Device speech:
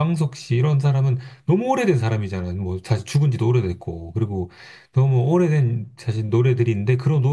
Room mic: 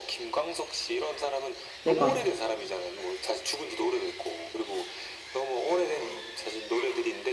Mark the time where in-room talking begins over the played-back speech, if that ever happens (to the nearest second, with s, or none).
2 s